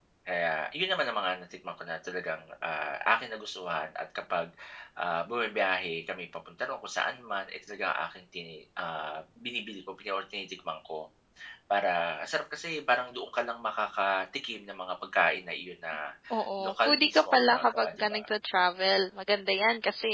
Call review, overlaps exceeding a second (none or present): present